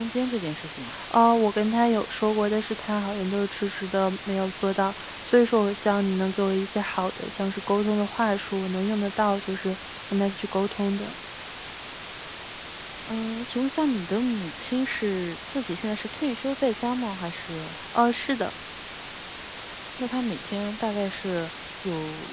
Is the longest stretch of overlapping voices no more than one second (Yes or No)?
Yes